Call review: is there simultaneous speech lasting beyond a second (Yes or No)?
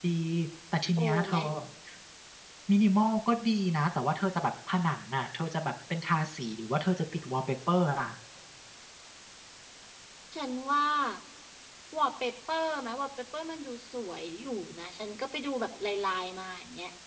No